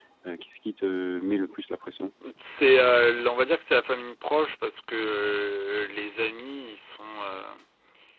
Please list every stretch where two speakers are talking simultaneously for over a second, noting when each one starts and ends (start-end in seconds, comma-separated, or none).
none